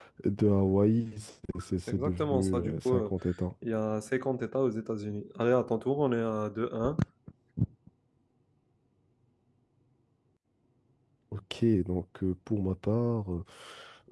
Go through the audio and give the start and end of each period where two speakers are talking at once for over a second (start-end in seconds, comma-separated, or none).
1.9-3.1